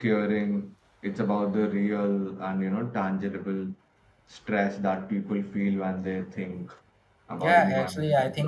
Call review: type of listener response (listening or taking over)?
taking over